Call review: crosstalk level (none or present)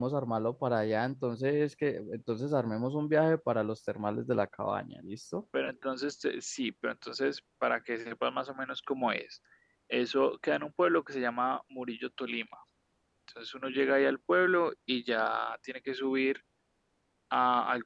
none